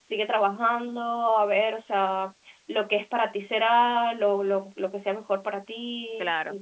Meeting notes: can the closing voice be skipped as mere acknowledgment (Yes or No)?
No